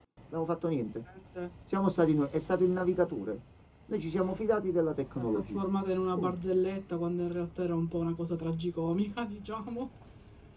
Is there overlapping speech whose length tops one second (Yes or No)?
No